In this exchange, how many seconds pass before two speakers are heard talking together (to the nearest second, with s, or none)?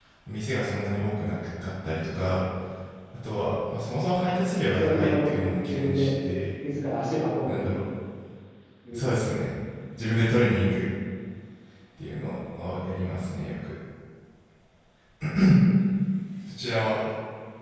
5 s